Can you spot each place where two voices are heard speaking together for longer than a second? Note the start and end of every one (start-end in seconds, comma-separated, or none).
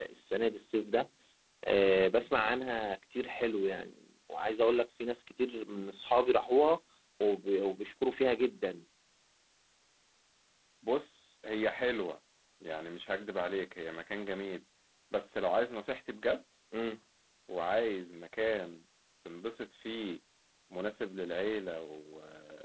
none